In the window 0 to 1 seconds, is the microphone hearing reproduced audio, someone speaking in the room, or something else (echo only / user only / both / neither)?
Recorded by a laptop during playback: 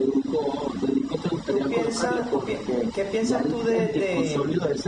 echo only